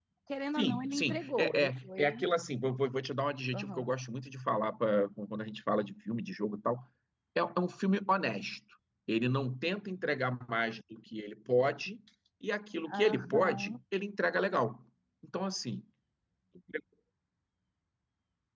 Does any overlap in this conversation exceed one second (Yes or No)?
Yes